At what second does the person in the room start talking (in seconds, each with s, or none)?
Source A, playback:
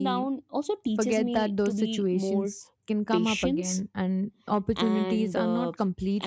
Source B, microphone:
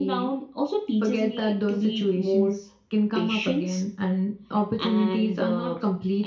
none